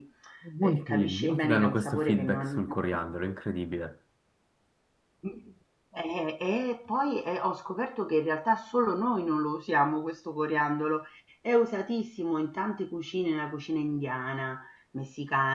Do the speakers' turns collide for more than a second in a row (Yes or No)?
Yes